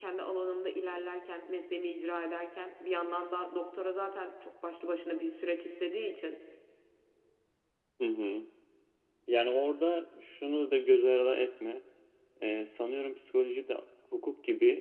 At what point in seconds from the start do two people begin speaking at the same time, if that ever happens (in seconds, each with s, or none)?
none